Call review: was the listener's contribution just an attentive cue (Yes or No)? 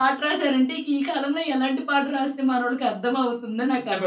No